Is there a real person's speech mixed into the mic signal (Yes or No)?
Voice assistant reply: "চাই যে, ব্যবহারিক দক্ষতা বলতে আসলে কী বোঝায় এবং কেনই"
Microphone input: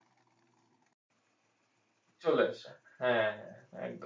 Yes